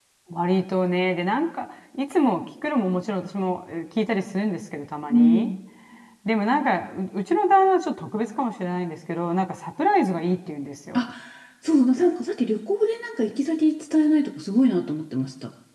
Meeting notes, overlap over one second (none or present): none